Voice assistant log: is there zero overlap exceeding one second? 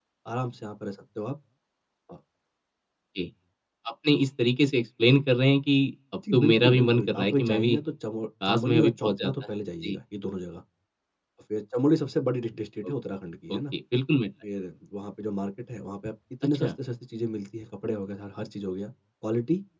No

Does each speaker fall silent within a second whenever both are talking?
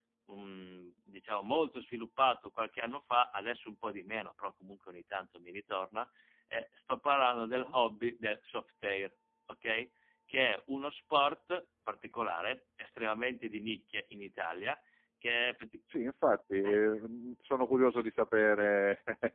Yes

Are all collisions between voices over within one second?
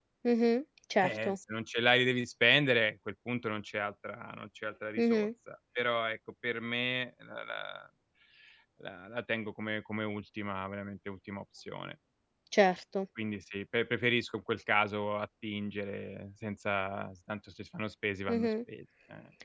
Yes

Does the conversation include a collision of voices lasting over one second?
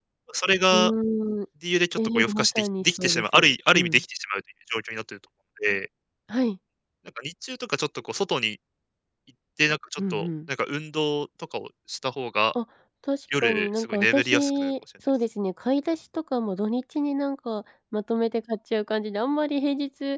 Yes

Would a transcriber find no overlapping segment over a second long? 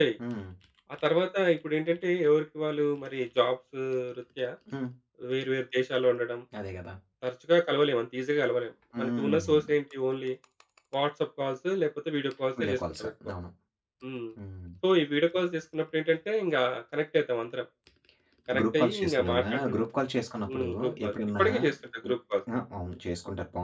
No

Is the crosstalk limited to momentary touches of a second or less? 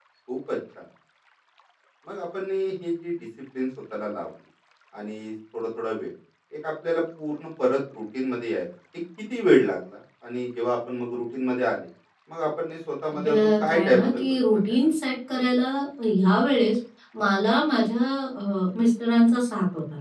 No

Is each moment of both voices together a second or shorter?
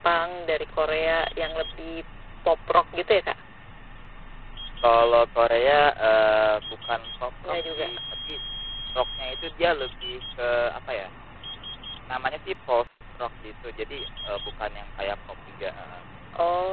Yes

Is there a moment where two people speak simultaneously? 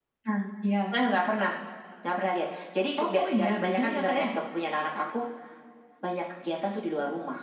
Yes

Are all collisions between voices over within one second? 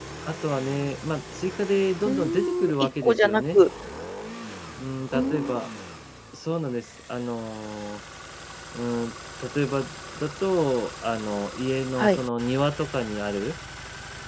No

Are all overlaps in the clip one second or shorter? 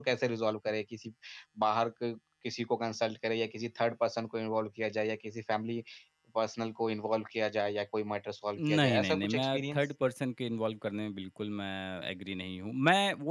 No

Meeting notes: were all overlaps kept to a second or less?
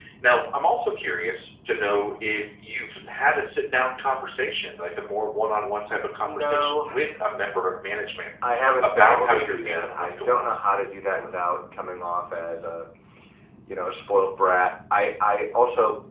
No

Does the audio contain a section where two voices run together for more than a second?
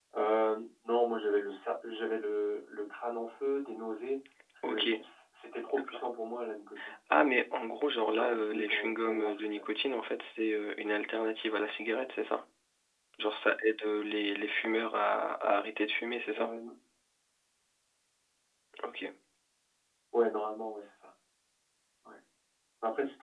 Yes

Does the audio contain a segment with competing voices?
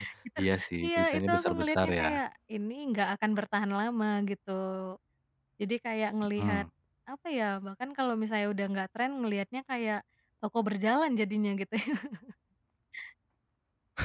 Yes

